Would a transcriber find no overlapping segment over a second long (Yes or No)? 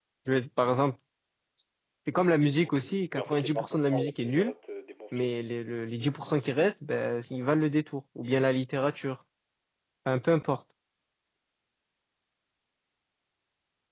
No